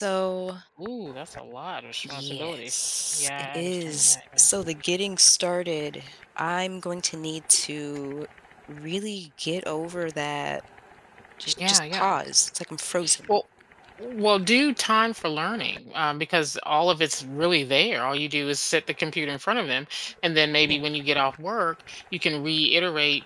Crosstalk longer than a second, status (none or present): present